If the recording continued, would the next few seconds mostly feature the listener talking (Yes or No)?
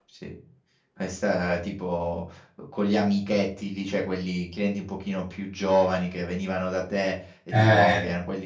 No